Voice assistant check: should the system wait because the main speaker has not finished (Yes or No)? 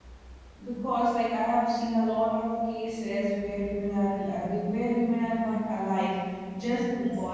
Yes